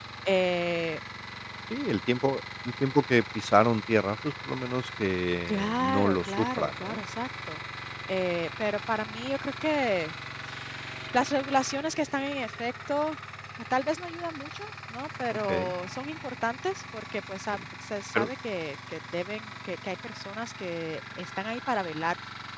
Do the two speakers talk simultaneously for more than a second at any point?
Yes, from 5.5 s

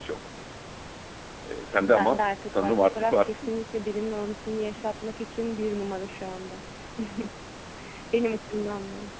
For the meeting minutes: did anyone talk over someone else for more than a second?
Yes, from 1.9 s

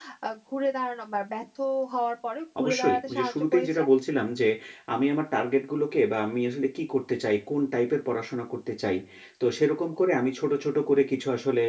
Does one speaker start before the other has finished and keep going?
Yes, from 2.6 s

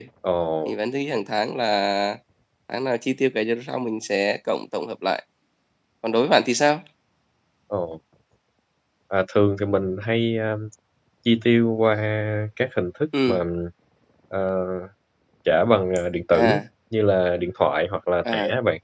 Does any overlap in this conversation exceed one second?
No

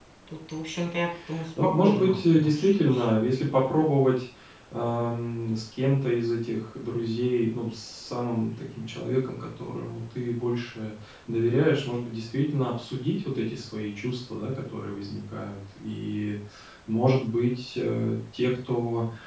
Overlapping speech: Yes, from 1.6 s

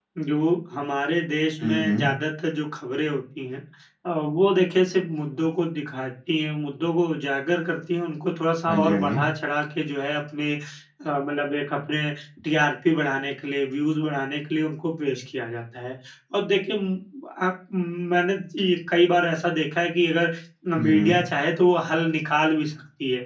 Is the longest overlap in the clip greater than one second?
No

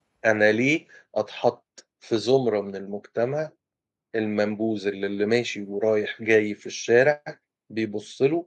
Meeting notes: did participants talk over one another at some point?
No

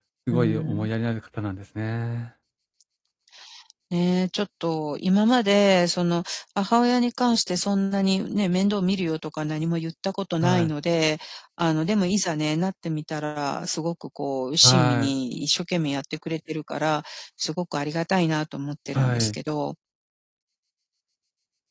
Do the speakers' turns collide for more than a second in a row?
No

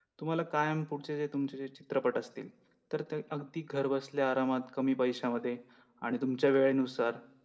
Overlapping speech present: No

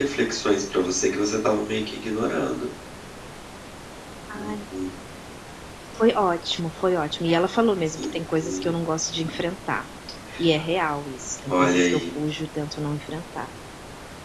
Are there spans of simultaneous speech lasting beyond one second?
No

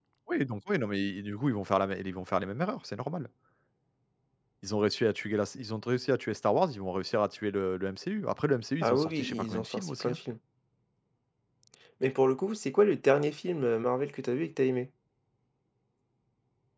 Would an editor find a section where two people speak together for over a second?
Yes, from 8.8 s

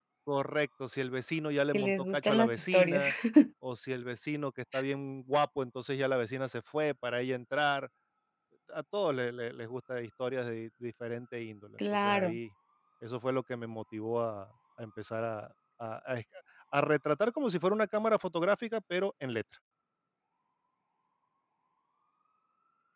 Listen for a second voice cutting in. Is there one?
Yes, from 1.7 s

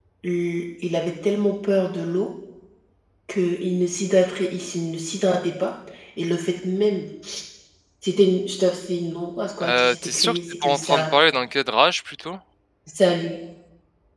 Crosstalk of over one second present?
Yes, from 9.6 s

